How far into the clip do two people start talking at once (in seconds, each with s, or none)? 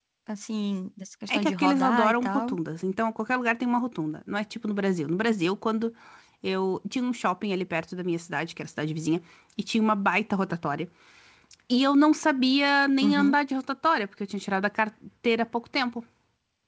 1.3 s